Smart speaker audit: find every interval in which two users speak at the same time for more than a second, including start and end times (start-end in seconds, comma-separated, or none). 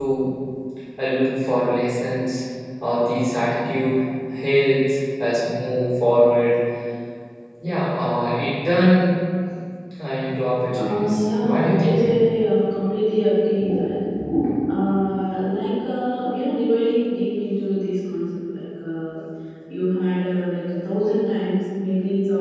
10.8-12.0